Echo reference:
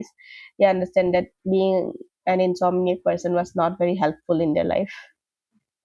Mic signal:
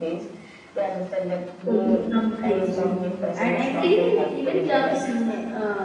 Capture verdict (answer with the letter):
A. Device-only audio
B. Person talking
B